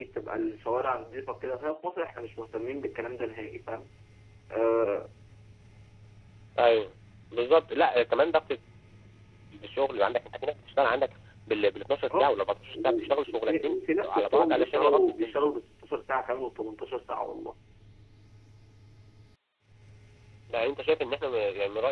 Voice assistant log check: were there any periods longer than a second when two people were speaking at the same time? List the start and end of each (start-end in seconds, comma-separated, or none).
12.7-15.4